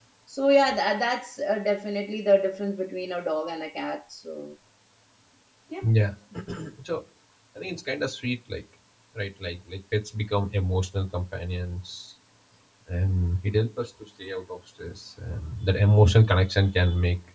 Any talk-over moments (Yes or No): No